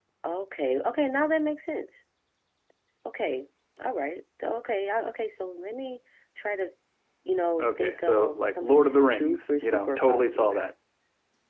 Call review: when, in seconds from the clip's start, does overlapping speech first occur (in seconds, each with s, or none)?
7.6 s